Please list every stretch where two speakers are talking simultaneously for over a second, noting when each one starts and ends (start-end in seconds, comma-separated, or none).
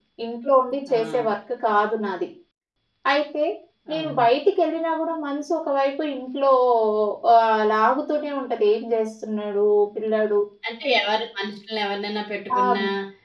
none